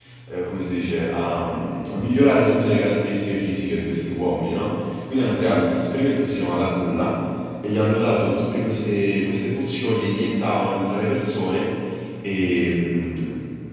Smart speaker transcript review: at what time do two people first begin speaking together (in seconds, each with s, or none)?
none